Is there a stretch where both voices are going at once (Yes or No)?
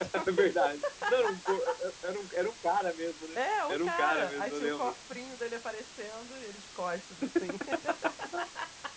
Yes